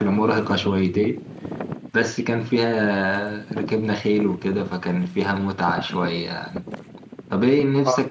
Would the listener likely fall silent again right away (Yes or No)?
No